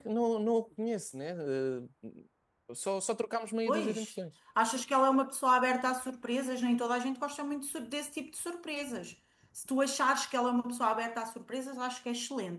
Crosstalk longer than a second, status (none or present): none